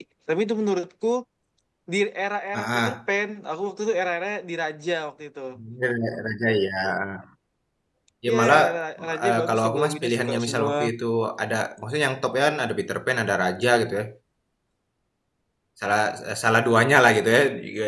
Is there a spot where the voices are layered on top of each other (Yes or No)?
Yes